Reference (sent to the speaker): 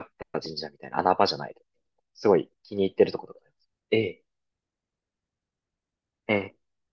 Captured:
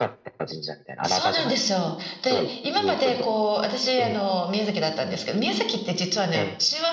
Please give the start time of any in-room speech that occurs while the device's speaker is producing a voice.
1.0 s

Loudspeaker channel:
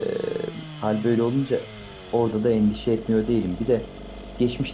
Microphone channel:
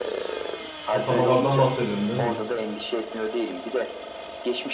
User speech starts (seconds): 0.9 s

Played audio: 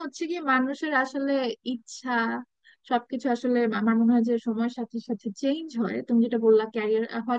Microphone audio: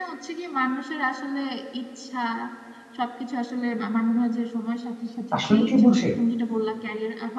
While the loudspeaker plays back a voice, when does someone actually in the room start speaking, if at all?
5.4 s

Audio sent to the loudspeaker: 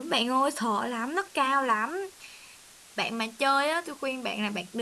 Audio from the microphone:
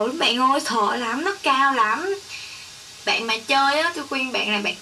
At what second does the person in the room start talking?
none

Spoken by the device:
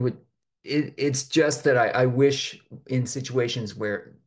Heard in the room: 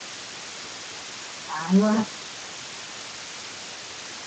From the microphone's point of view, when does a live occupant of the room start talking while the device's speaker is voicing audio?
1.5 s

